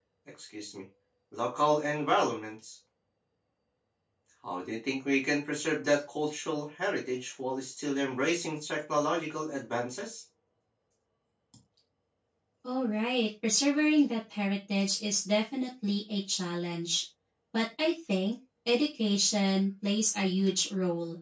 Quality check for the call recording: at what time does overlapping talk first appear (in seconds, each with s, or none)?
none